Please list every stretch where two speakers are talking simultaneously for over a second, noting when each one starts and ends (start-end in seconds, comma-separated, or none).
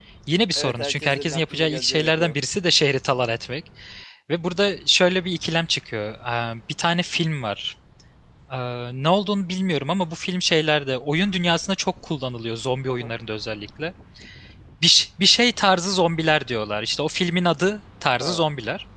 0.6-2.3